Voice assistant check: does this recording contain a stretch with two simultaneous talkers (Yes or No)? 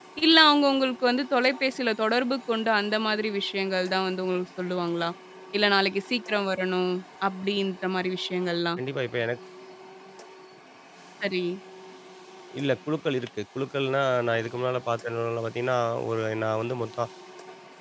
No